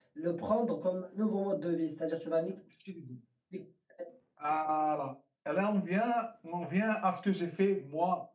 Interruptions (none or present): none